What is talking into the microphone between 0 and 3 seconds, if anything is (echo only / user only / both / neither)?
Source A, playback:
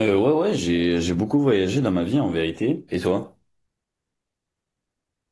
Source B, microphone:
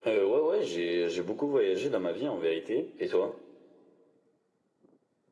echo only